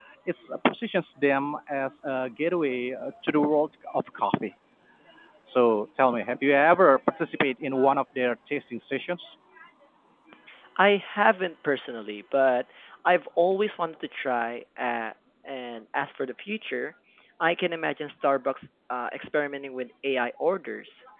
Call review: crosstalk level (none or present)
none